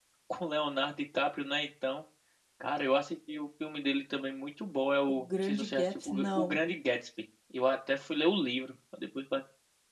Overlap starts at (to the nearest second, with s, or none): 5 s